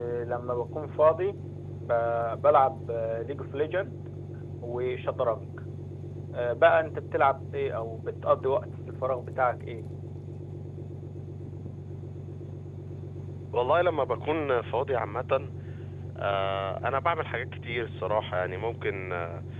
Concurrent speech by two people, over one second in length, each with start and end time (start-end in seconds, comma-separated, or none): none